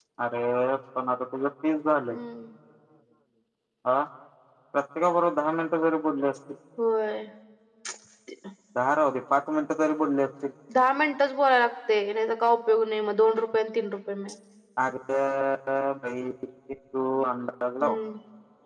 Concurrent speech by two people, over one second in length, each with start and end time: none

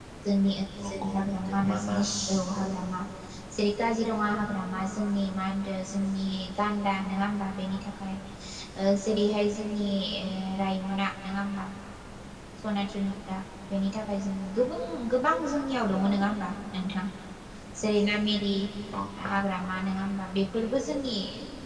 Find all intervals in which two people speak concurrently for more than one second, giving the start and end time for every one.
0.8-2.1

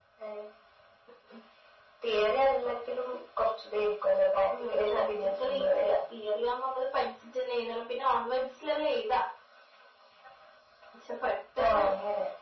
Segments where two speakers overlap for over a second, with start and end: 4.7-6.0

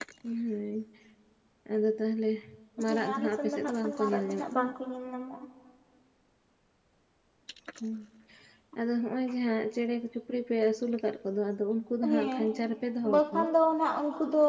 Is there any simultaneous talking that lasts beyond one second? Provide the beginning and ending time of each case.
2.9-4.7

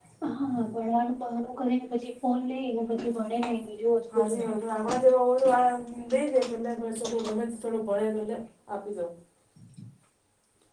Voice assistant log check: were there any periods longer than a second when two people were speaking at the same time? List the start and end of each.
none

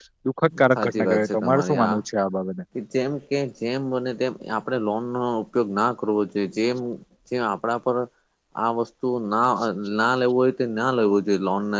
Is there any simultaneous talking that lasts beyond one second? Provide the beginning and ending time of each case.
0.8-2.0

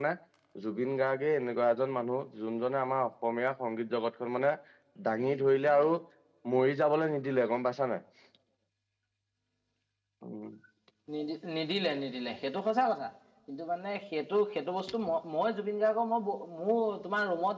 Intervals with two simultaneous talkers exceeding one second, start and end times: none

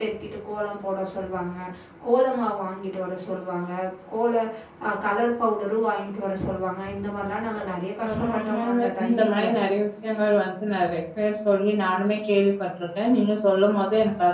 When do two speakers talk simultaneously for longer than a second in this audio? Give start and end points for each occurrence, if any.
8.1-9.4

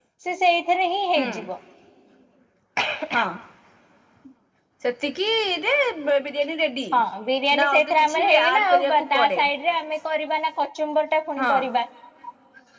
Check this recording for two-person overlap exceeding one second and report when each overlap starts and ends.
7.6-9.4

